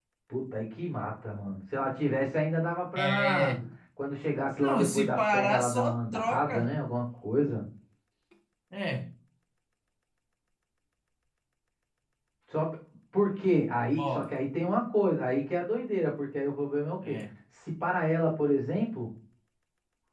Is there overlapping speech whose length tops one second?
Yes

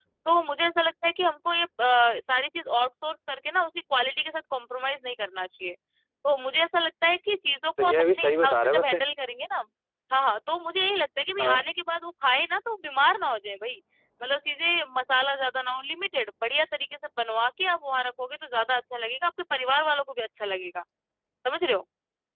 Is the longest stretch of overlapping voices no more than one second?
No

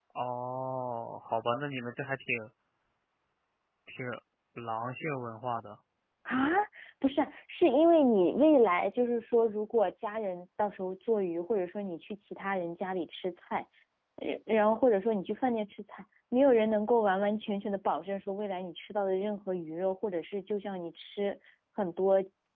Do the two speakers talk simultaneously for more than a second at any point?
No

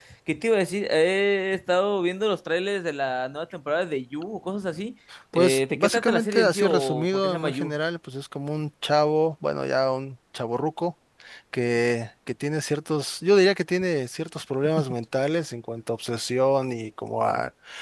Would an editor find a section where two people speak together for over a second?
Yes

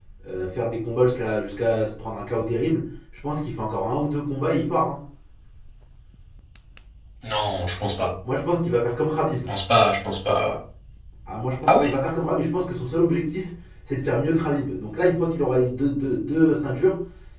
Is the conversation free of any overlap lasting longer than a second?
Yes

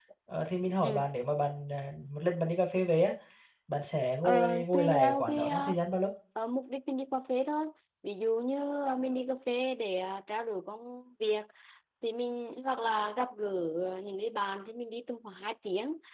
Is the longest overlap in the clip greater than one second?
Yes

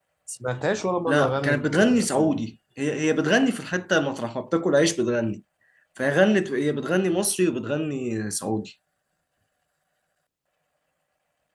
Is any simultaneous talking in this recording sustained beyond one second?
Yes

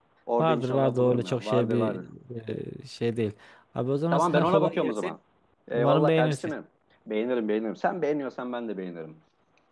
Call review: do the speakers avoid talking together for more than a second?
No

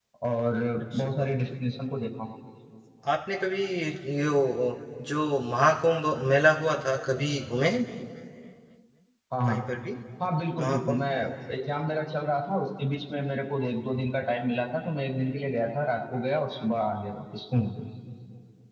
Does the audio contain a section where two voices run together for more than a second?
No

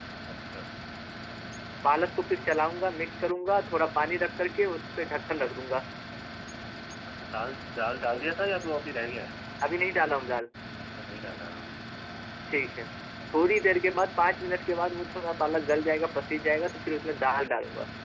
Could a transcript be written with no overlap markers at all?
Yes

